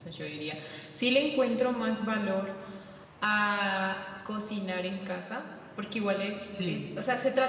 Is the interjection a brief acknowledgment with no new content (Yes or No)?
Yes